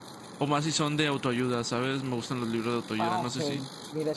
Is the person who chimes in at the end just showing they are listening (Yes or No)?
No